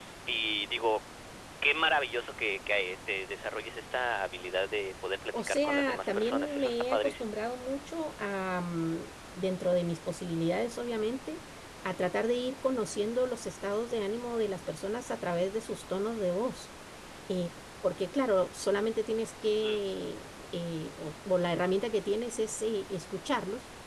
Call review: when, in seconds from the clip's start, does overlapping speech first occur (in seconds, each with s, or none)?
5.3 s